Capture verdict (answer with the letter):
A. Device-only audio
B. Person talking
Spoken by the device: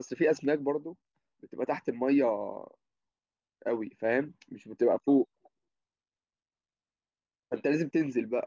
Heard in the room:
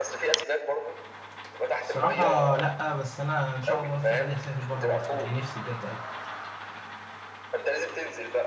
B